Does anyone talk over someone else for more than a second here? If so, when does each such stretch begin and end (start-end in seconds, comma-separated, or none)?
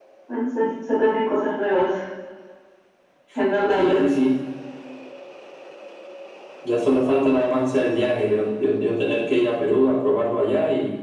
none